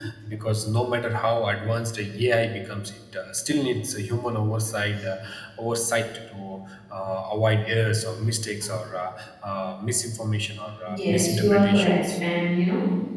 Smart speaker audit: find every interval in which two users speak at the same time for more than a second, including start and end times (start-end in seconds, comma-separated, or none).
10.9-12.1